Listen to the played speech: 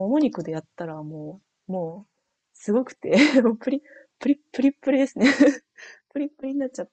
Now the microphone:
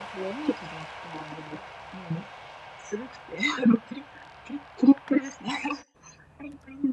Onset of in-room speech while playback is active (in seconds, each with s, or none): none